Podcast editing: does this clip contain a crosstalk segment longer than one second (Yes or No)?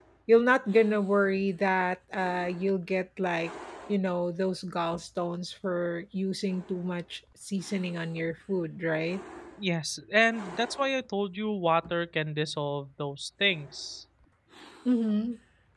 No